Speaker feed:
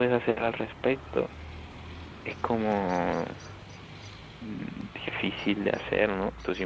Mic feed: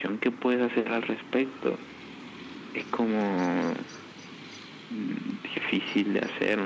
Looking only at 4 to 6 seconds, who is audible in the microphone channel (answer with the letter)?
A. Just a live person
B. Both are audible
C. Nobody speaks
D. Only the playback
D